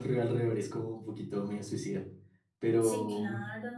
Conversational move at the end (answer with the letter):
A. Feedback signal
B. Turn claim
B